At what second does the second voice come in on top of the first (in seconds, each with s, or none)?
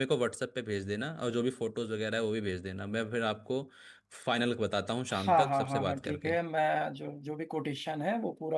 5.1 s